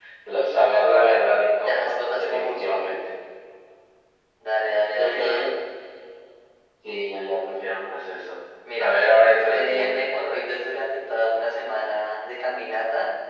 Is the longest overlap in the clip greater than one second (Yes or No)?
Yes